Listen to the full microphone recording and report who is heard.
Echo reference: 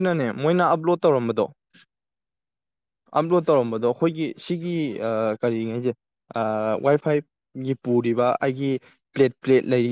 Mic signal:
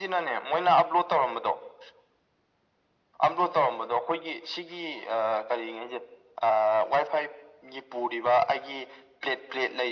echo only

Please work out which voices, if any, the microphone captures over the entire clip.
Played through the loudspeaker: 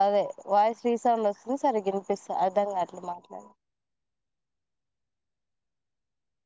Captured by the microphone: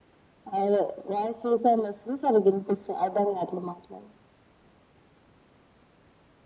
echo only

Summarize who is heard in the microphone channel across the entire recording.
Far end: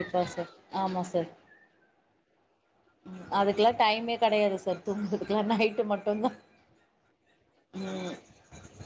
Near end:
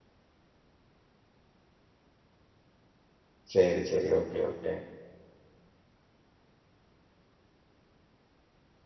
user only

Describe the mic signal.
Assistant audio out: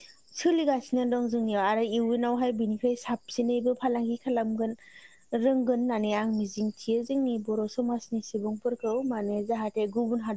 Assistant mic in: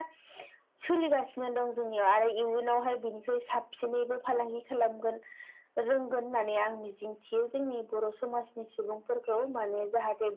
echo only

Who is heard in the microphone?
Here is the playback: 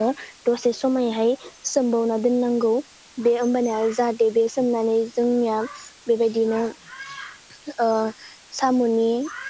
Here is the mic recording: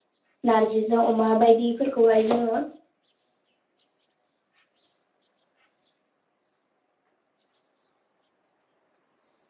user only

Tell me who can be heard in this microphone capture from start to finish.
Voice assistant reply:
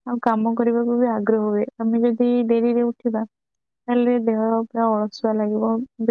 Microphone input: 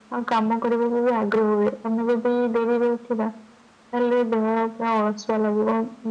echo only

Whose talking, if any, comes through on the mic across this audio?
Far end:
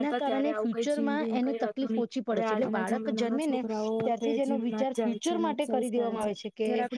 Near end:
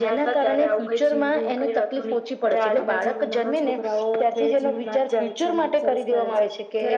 echo only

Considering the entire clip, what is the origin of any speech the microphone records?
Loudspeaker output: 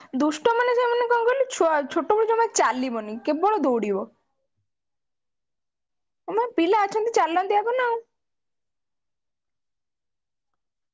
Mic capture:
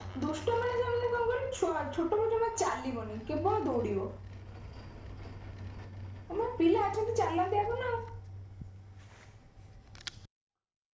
echo only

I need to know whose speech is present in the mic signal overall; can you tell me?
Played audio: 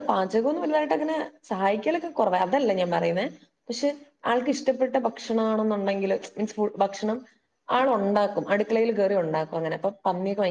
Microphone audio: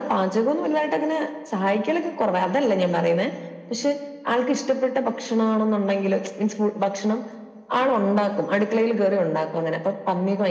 echo only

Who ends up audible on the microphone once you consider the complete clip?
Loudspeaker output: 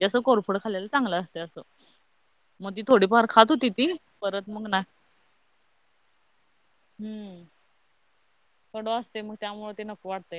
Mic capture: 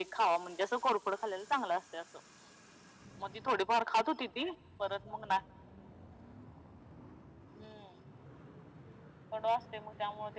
echo only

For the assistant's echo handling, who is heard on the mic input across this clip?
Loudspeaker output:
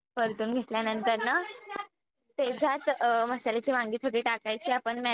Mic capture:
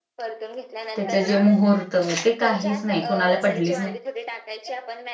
both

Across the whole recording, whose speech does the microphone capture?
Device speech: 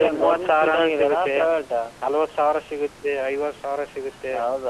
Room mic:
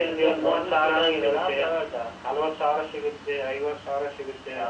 echo only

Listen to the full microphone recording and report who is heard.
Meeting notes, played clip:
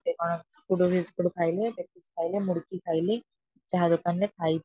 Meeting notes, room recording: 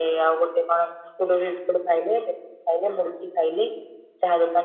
echo only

